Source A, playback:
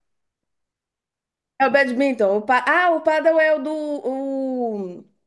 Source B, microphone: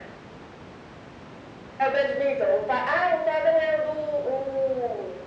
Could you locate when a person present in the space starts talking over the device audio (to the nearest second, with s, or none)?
none